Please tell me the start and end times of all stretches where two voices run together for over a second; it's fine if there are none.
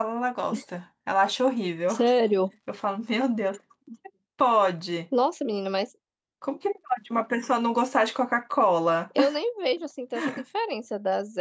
none

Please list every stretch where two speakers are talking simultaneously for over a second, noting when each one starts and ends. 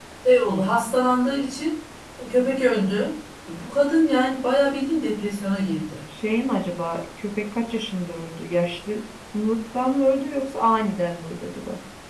none

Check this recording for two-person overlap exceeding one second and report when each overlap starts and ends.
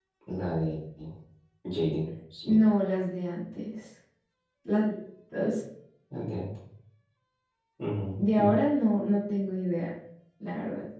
none

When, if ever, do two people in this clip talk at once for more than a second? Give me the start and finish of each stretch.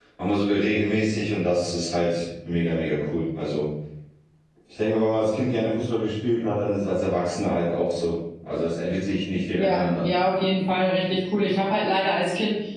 none

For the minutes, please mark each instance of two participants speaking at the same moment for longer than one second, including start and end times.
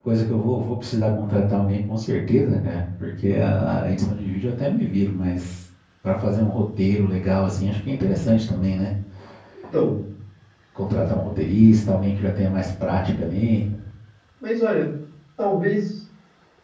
none

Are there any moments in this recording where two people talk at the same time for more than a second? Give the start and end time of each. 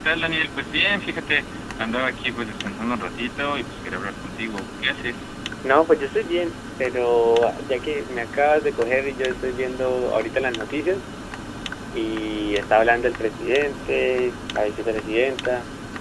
none

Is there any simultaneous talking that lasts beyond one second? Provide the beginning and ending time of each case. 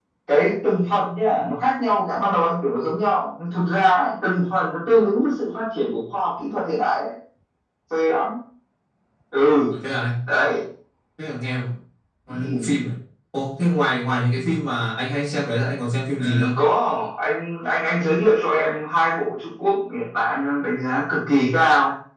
none

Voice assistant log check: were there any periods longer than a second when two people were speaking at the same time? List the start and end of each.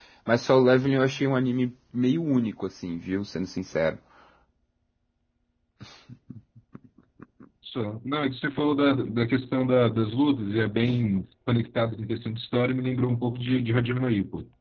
none

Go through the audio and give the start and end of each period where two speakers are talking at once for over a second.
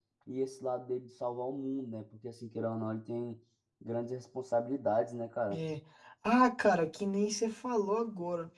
none

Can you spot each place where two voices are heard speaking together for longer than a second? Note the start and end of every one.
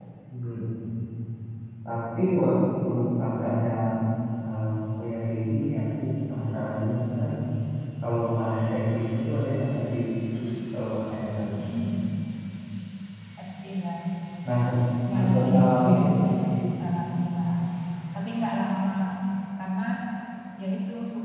15.2-16.4

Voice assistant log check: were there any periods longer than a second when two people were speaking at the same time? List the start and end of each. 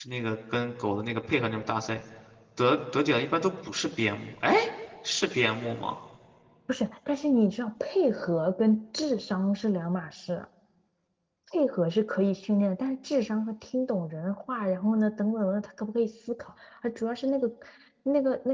none

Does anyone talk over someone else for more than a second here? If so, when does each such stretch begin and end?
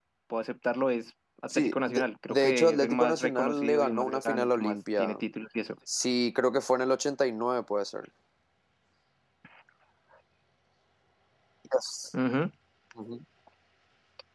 1.6-5.2

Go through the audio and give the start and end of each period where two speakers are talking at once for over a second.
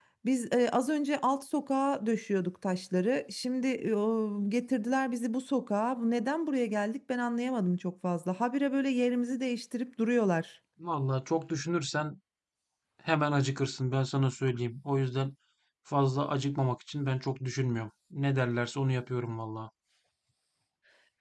none

